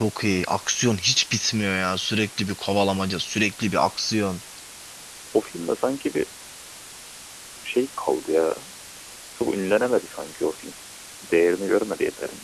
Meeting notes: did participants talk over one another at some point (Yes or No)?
No